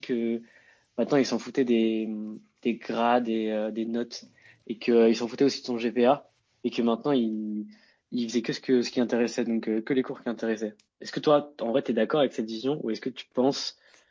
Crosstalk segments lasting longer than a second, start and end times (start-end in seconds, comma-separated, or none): none